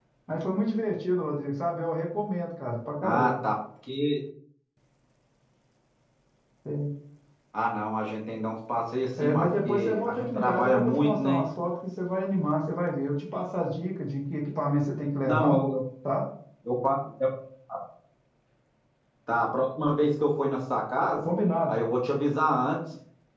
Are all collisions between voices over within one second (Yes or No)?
No